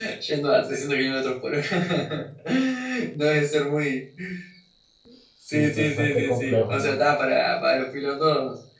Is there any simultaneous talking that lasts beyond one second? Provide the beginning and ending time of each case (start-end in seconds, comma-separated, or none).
5.5-6.9